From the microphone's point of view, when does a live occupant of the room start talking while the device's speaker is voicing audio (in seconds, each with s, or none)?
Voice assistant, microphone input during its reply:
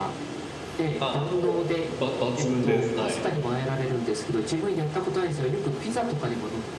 1.0 s